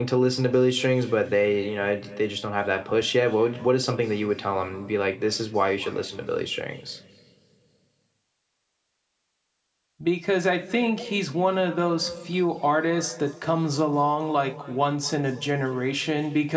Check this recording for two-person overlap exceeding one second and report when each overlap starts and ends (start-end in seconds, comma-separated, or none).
none